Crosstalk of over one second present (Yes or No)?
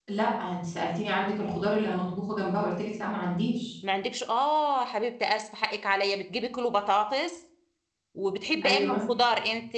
No